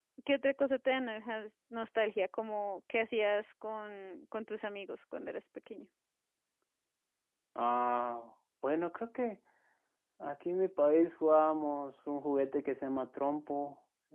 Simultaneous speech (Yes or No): No